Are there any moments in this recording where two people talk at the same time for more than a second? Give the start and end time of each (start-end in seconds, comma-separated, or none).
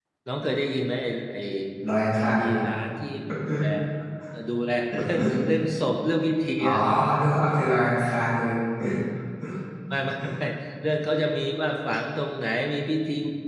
none